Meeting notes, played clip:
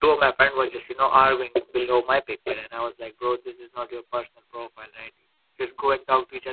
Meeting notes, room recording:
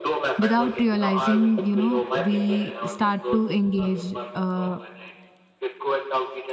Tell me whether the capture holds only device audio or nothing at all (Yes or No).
No